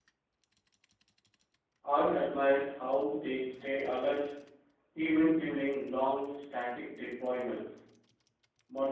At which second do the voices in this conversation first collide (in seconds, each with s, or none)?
none